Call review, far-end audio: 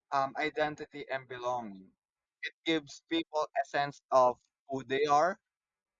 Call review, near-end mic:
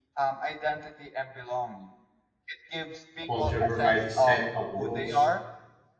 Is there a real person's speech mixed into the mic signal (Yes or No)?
Yes